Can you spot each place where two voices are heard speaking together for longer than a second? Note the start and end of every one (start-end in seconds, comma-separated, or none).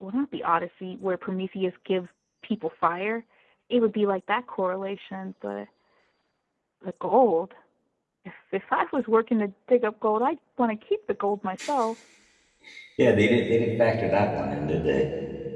none